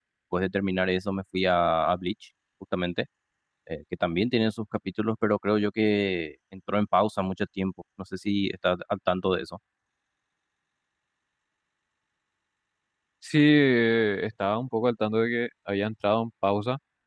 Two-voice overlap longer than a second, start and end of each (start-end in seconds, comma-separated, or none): none